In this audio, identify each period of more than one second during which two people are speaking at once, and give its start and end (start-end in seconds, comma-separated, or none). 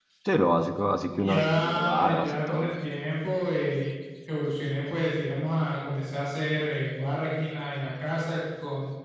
1.2-2.7